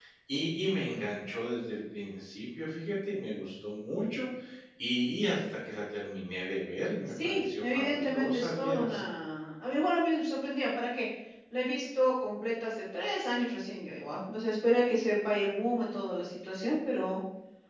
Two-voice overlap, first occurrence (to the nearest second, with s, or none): 7 s